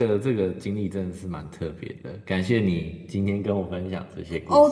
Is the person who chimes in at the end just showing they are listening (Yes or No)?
No